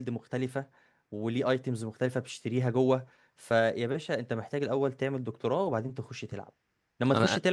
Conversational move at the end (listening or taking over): listening